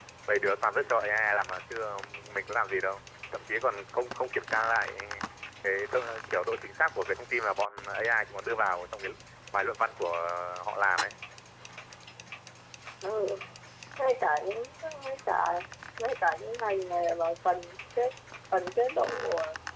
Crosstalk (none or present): none